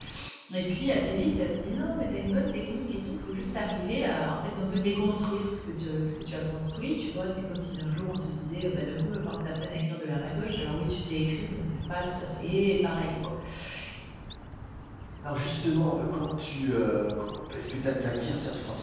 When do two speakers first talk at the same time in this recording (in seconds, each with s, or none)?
none